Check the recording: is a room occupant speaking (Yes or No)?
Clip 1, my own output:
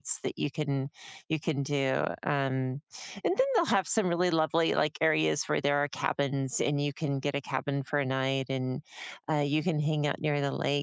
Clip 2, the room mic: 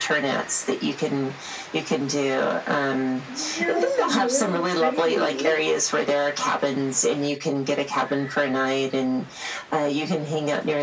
Yes